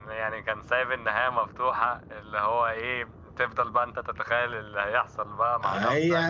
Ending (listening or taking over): taking over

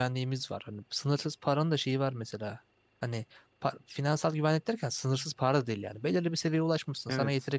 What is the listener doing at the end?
listening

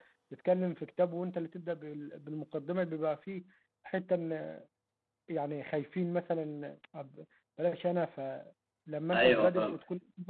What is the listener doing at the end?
listening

